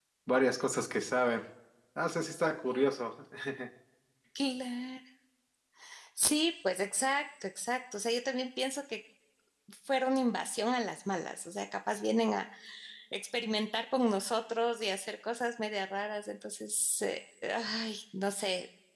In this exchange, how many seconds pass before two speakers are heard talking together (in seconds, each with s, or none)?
none